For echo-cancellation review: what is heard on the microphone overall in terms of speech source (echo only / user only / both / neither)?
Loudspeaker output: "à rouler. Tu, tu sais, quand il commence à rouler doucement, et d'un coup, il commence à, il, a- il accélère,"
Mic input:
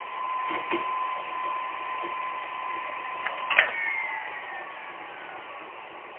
neither